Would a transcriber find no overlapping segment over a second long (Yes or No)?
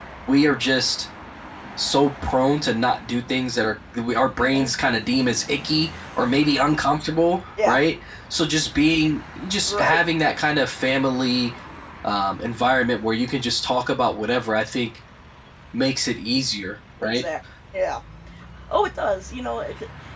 Yes